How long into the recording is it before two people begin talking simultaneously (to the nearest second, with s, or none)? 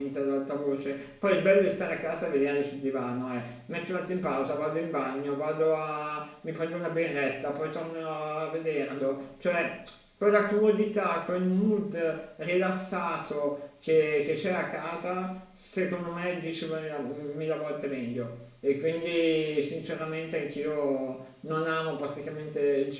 none